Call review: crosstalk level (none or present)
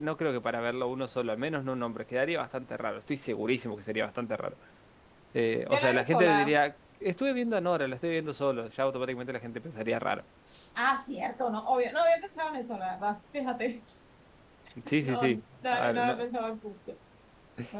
present